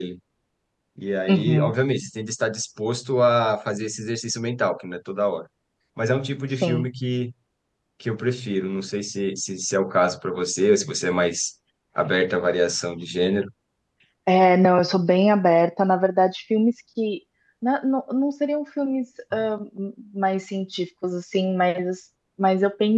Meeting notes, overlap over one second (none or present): none